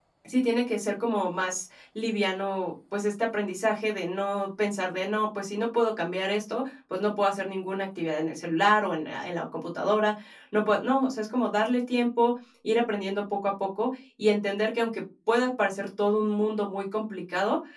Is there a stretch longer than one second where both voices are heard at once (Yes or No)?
No